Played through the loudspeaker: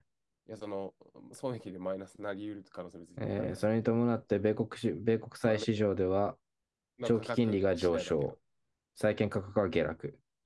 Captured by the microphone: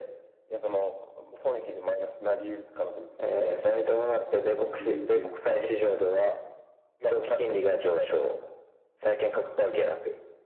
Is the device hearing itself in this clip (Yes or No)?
Yes